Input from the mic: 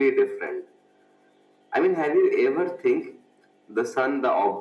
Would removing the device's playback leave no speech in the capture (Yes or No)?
Yes